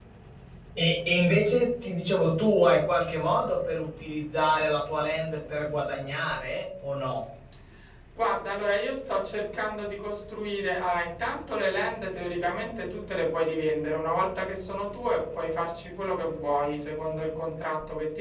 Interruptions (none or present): none